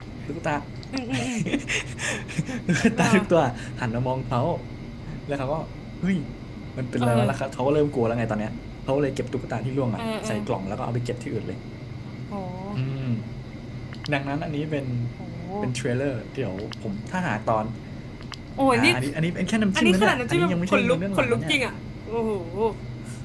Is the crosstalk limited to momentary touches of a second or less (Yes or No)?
No